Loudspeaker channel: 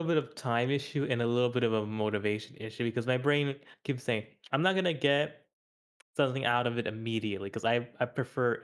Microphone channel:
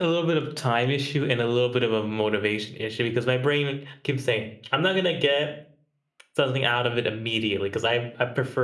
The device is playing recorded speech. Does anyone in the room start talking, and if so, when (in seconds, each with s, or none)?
none